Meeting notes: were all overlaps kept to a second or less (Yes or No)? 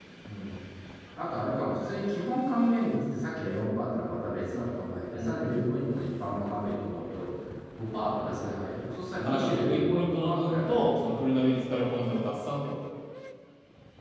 No